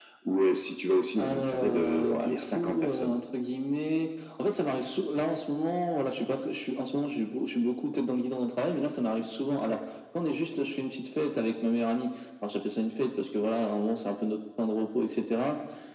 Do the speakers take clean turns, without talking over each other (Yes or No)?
No